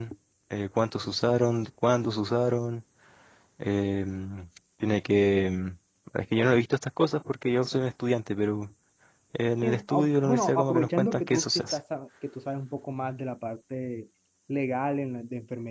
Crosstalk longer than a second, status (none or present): present